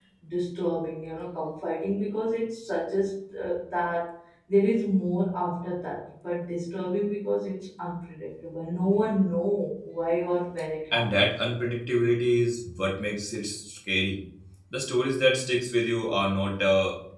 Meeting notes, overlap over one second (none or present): none